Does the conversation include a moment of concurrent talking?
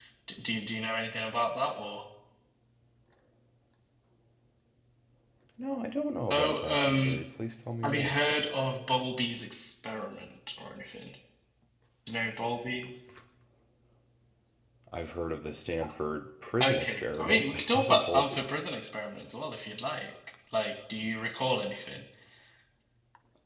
Yes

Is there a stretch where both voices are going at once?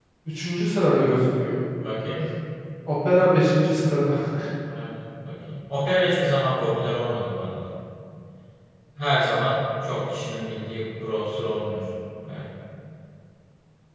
No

